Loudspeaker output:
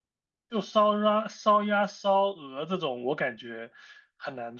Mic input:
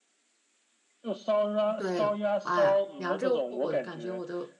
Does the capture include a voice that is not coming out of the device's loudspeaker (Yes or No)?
Yes